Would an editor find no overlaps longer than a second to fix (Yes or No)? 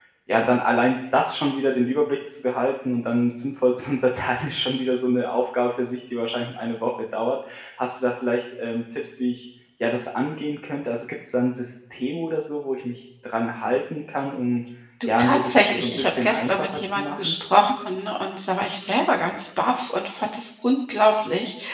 No